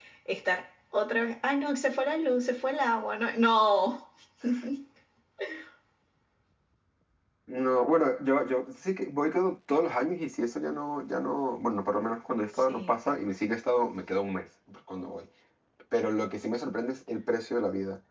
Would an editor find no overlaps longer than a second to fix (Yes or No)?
Yes